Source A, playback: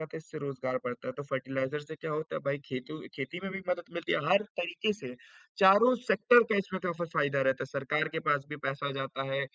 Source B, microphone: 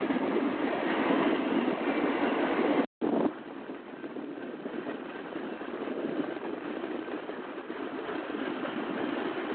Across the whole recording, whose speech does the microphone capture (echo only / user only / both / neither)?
neither